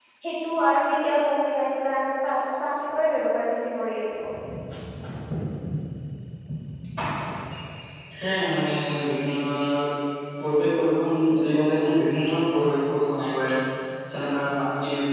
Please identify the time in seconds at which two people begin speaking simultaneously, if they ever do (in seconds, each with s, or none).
none